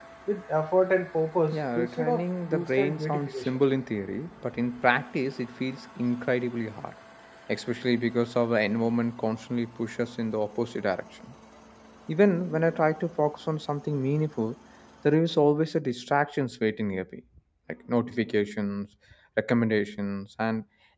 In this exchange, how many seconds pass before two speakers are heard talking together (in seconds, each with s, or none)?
1.5 s